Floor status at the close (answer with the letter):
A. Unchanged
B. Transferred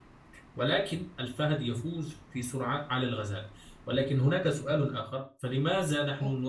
A